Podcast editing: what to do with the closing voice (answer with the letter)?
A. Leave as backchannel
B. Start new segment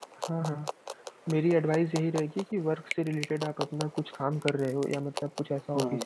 A